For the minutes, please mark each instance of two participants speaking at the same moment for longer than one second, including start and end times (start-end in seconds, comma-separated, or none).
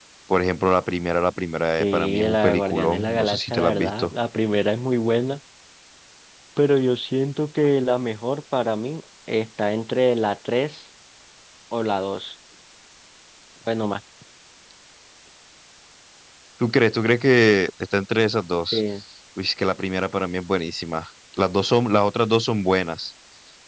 1.8-4.1